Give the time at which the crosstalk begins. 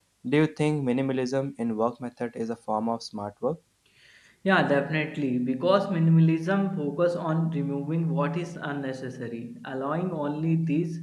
none

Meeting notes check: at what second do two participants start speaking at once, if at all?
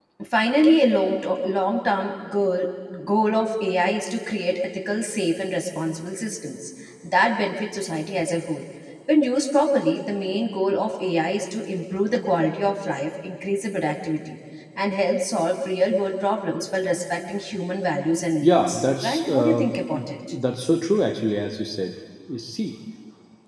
18.4 s

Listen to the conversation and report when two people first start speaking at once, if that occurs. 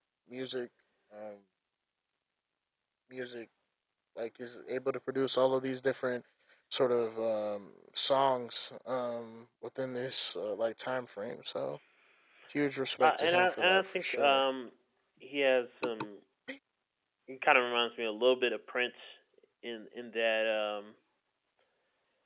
13.0 s

